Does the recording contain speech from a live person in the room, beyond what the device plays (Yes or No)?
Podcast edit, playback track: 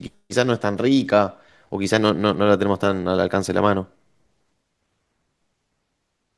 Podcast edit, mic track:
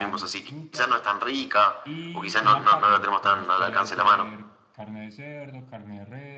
Yes